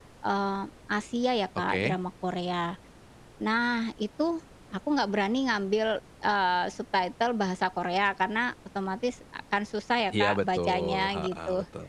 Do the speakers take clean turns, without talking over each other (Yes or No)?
No